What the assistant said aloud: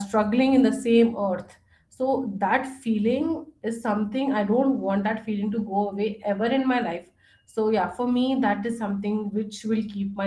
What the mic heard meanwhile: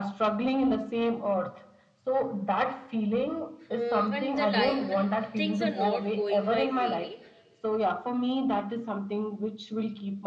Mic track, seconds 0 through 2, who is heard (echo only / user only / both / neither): echo only